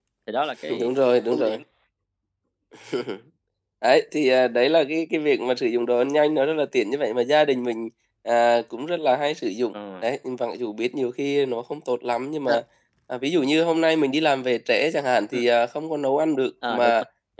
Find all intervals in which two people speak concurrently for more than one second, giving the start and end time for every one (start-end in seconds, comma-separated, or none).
none